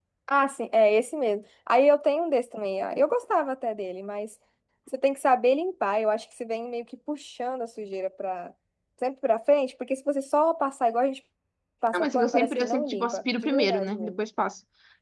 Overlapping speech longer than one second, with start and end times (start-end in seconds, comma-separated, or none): 11.9-14.1